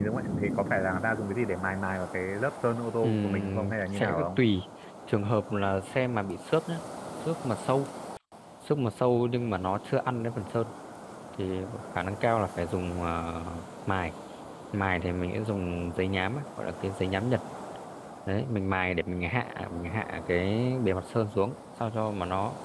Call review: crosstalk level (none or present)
present